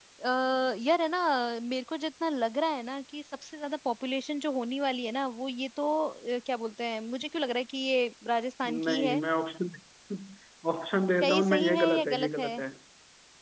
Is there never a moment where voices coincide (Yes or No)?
No